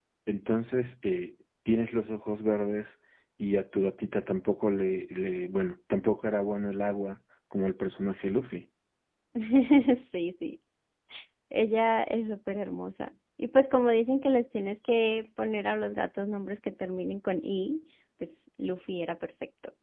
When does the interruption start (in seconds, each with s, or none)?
none